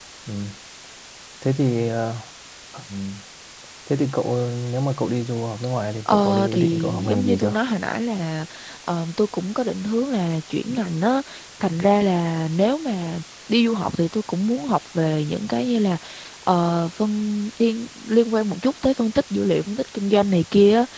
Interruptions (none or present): present